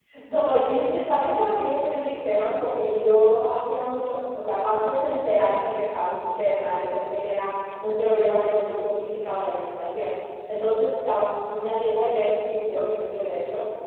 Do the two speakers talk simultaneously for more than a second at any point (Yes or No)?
No